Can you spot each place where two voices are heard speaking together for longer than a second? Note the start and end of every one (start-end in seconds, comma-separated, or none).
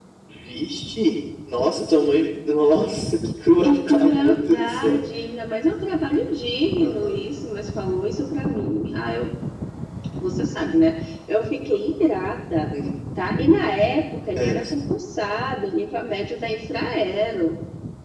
3.6-5.0